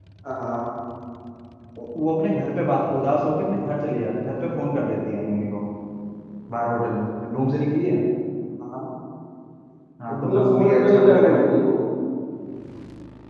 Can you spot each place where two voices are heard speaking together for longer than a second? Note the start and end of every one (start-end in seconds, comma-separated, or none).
10.1-11.4